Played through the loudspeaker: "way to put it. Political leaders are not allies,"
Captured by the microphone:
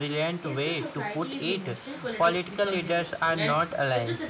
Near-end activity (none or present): present